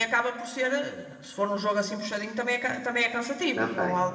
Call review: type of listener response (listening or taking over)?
taking over